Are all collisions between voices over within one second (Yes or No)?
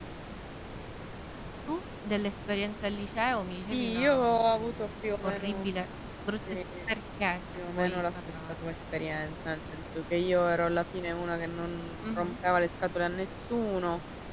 No